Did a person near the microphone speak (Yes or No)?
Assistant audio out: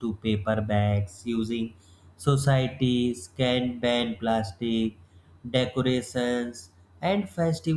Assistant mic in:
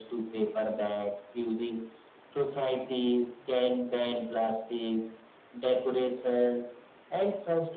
No